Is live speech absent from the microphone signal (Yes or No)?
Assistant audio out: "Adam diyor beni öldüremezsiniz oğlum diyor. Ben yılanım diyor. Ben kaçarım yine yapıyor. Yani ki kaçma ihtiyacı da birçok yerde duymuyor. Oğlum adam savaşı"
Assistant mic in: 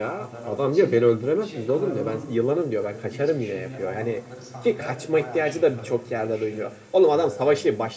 No